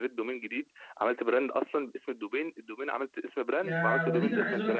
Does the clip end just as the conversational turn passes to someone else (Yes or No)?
Yes